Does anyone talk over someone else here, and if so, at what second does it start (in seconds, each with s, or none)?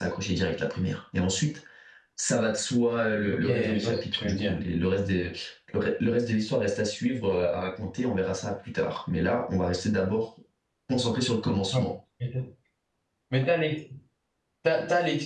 3.3 s